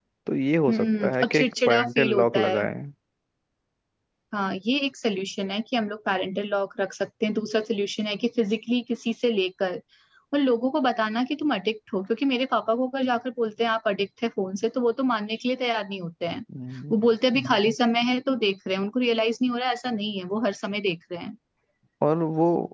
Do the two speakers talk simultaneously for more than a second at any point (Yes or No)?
Yes